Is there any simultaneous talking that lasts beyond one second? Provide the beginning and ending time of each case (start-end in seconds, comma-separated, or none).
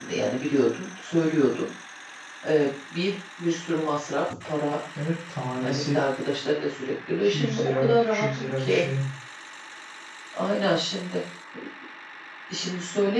7.2-8.8